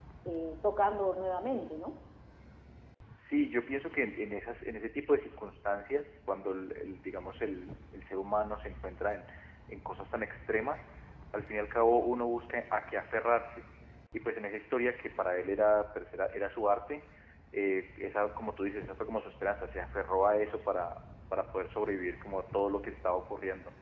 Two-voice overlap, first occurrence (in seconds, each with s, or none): none